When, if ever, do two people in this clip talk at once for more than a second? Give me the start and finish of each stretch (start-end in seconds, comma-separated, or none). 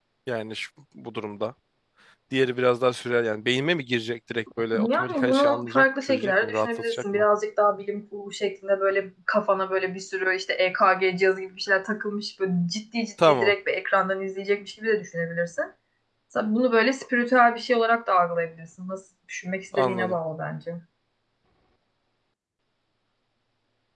4.9-7.2